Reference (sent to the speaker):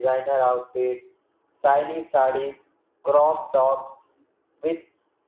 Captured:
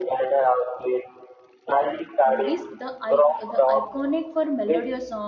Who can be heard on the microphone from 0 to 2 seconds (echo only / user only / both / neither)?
echo only